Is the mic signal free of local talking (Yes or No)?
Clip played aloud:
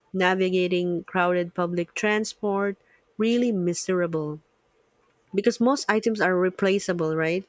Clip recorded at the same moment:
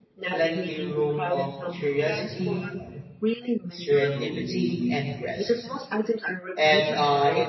No